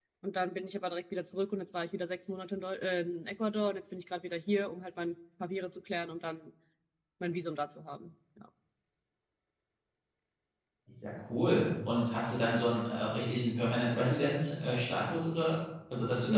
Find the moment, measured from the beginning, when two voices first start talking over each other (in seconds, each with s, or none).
none